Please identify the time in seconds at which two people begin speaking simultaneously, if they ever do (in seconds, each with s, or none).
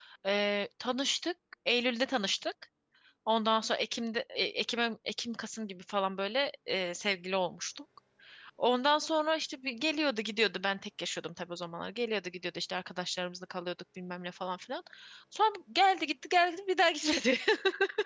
none